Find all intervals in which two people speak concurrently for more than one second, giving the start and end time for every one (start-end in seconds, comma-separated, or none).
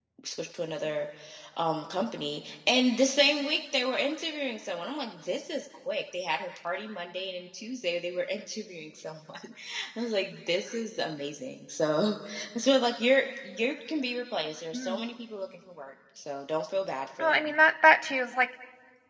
none